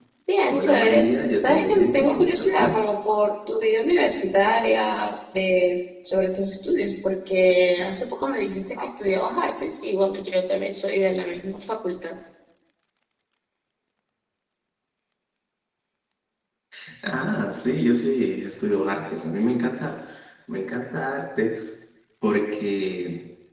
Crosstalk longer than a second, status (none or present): present